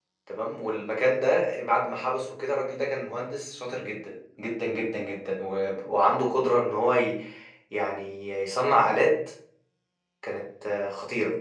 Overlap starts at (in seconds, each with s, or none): none